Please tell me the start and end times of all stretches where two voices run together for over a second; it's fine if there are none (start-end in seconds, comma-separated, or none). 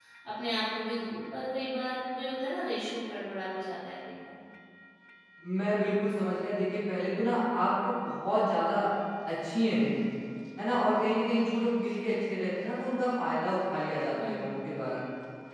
none